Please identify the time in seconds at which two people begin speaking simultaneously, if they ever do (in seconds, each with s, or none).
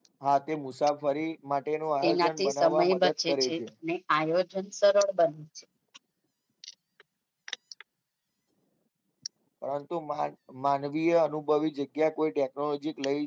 2.0 s